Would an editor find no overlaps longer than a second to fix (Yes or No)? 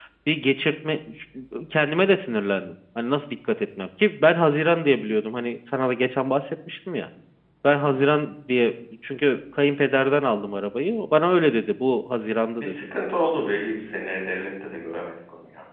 Yes